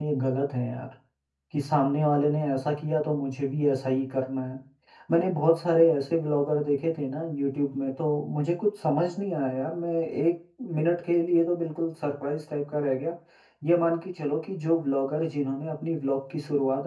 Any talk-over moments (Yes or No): No